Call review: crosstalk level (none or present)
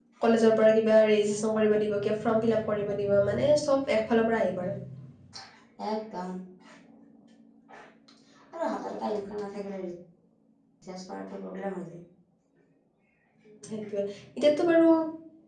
none